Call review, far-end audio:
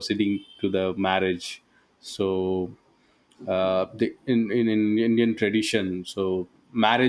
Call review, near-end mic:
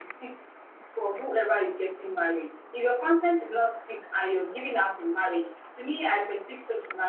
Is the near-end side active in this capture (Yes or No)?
Yes